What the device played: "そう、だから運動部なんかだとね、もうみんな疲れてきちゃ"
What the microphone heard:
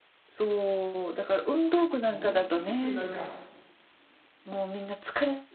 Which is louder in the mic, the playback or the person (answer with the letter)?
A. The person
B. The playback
B